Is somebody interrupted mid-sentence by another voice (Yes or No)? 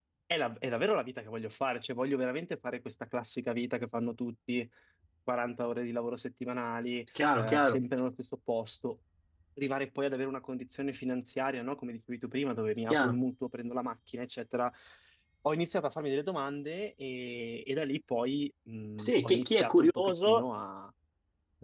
Yes